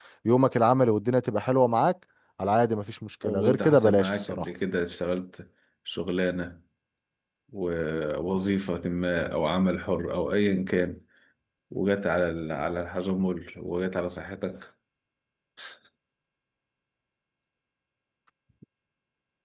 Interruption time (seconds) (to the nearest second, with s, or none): 3 s